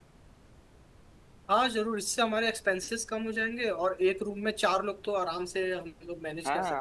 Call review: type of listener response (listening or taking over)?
taking over